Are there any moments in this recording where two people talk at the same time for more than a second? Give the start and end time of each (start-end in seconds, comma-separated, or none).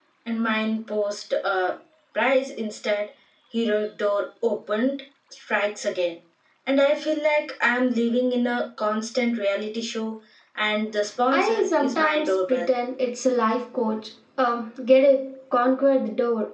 11.3-12.7